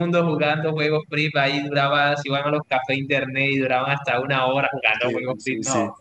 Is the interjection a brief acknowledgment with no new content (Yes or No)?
No